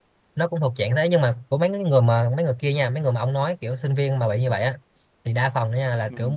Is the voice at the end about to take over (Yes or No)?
No